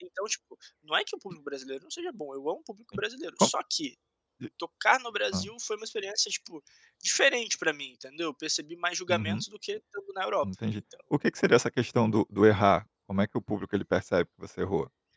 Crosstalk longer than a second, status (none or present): none